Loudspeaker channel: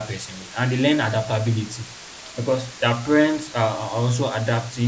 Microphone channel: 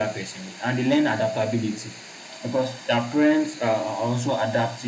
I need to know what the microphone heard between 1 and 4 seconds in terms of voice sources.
echo only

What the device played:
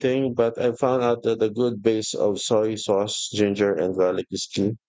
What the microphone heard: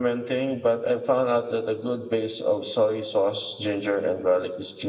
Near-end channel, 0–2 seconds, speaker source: echo only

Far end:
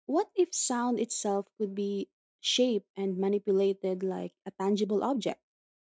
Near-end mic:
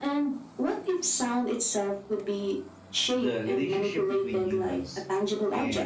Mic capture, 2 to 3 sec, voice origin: echo only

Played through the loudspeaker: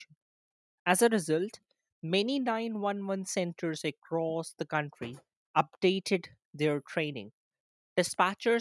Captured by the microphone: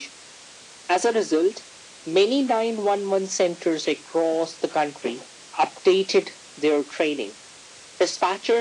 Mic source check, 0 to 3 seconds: echo only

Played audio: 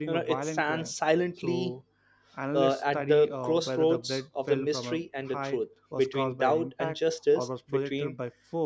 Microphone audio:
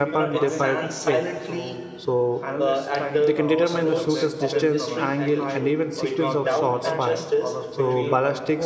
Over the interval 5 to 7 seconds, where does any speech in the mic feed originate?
both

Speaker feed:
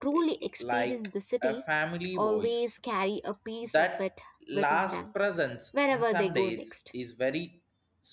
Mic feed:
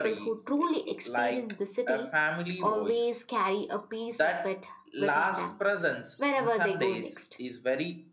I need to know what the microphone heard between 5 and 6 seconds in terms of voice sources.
echo only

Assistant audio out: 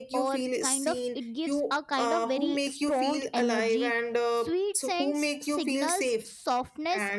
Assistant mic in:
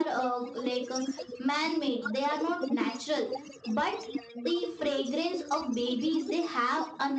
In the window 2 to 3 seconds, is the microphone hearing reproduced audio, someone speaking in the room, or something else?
both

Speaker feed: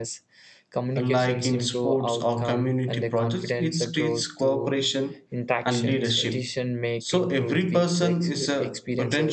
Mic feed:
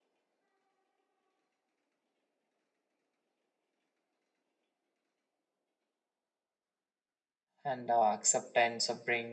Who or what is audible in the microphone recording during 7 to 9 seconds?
user only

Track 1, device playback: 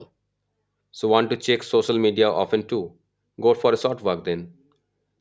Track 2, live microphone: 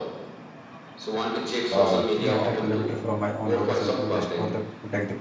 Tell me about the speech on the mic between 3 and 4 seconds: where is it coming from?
both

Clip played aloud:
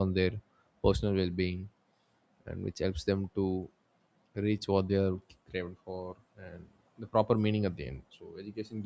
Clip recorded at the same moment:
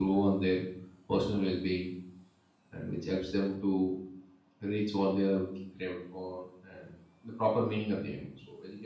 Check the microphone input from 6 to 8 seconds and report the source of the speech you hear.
echo only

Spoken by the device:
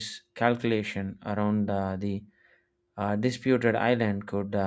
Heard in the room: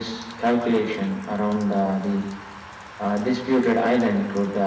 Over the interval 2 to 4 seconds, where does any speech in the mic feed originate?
echo only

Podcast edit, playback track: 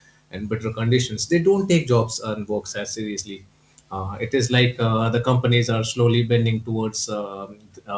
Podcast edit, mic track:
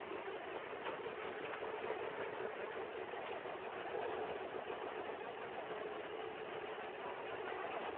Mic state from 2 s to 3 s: neither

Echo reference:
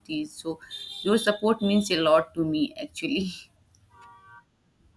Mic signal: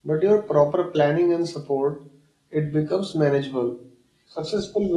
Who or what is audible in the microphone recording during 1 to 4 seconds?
user only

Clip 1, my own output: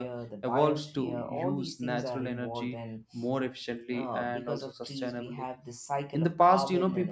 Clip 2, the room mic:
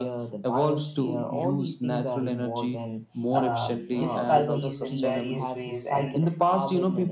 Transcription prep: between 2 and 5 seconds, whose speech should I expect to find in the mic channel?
both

